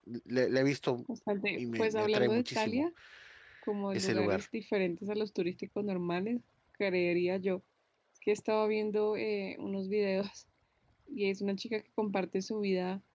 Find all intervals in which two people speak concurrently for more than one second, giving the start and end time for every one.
1.6-2.8

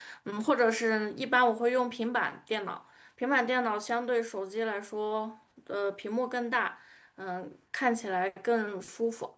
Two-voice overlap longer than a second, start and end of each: none

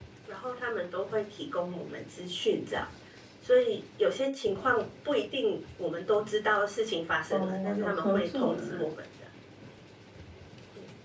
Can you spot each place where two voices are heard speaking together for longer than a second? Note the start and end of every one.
7.3-8.8

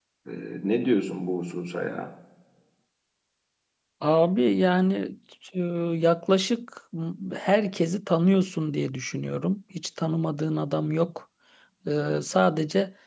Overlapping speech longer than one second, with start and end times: none

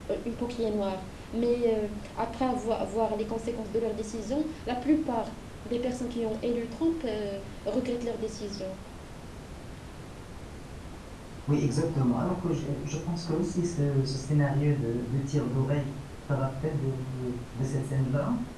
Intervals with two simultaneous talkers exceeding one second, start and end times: none

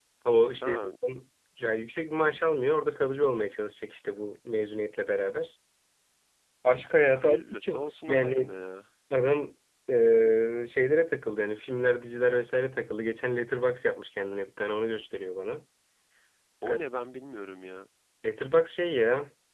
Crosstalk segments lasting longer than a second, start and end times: 7.1-8.5

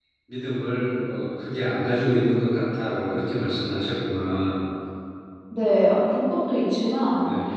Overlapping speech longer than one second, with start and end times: none

